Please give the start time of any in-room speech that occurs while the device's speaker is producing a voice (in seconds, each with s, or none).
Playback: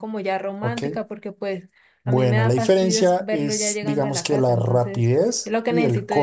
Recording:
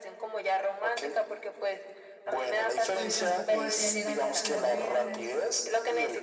2.9 s